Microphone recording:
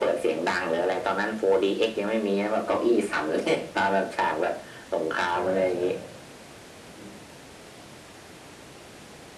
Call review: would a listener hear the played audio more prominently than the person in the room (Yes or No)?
Yes